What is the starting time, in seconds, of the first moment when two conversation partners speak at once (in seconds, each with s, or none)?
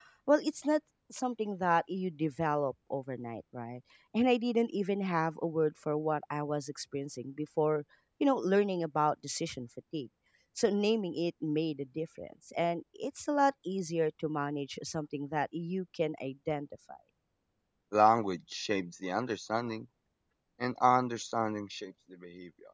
none